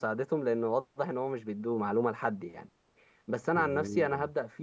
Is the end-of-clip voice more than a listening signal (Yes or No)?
No